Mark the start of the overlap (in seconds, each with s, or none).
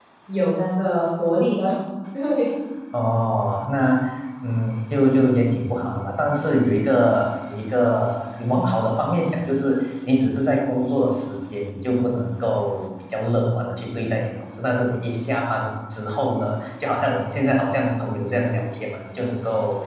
none